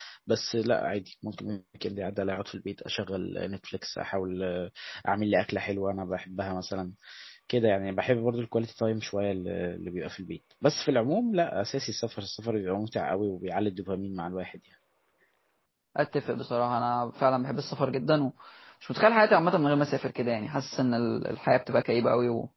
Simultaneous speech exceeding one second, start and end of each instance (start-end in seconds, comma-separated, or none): none